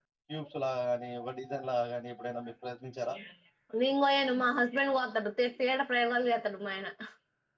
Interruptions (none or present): none